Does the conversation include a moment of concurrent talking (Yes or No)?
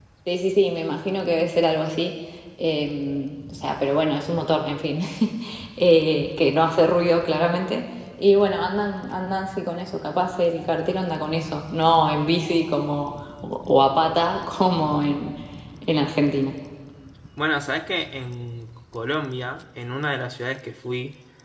No